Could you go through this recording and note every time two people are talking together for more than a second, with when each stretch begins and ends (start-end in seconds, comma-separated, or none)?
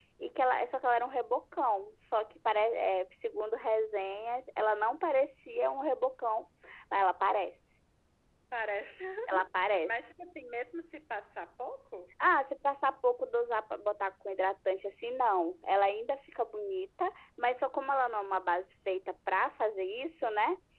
none